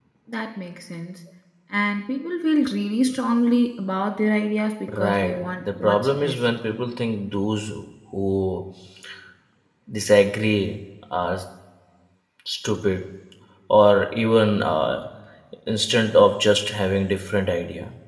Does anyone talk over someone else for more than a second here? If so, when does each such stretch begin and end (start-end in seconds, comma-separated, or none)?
4.9-6.4